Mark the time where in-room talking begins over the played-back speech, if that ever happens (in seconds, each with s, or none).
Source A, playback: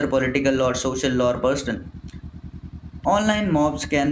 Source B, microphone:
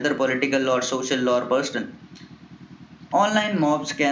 none